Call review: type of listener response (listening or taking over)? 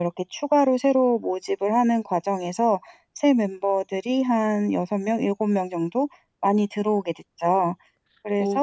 taking over